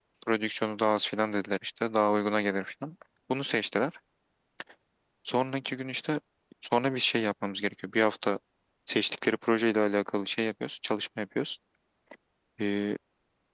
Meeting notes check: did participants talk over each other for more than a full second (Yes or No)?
No